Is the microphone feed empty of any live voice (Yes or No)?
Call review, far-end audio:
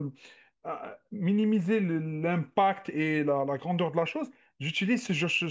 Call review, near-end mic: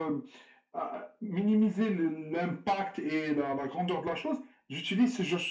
Yes